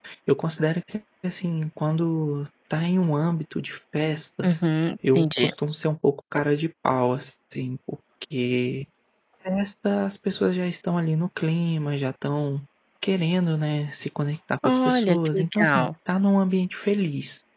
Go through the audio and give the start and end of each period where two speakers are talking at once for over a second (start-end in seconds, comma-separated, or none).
14.6-15.9